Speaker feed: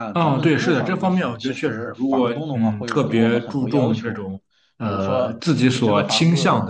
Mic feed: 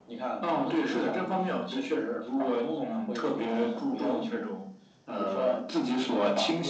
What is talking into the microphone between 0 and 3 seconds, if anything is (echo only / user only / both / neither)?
echo only